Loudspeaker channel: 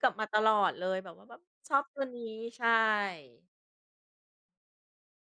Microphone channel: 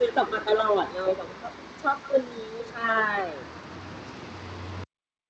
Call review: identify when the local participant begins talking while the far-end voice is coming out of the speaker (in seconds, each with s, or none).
none